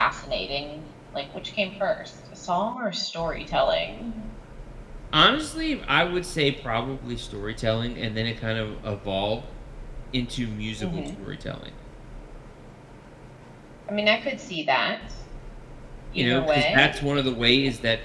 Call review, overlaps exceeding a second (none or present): present